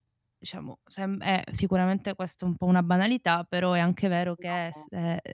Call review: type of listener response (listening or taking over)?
listening